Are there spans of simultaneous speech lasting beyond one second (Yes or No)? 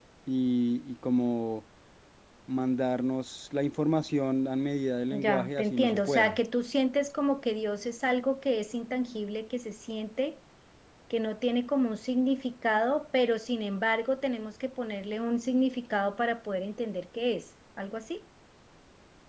Yes